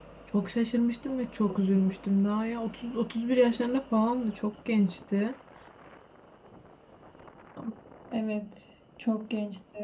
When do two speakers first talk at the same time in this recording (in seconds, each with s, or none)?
none